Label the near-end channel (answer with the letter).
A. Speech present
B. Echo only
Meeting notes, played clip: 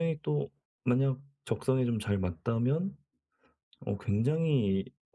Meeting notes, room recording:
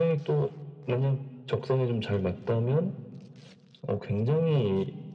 B